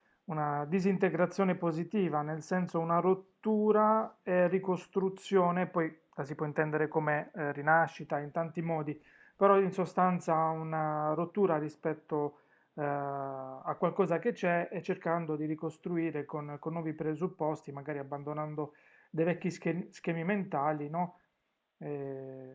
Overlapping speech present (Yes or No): No